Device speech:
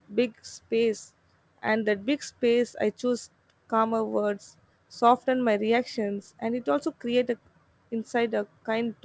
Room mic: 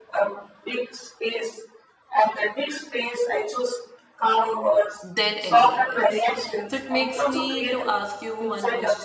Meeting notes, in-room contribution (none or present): present